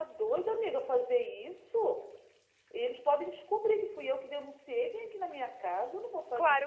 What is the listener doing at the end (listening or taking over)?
taking over